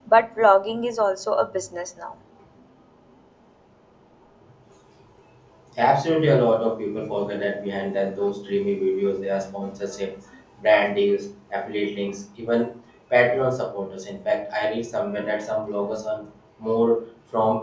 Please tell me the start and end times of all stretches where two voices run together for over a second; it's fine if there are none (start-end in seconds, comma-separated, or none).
none